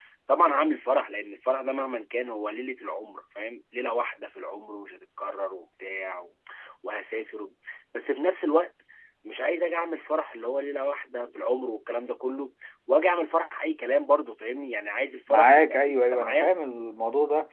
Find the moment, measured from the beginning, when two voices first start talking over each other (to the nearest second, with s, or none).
15 s